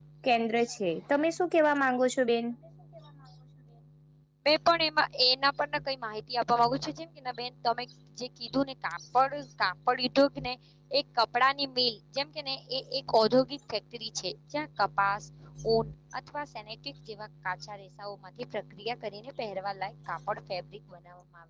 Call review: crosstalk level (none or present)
none